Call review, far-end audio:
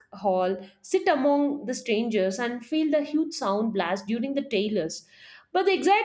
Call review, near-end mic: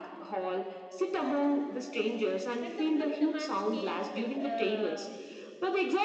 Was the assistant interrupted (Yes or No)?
Yes